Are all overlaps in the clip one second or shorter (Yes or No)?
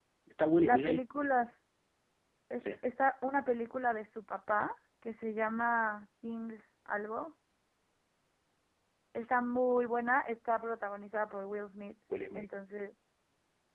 Yes